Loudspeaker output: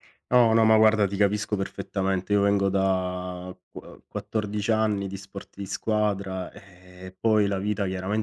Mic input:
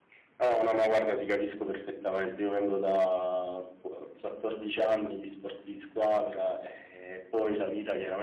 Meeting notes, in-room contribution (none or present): none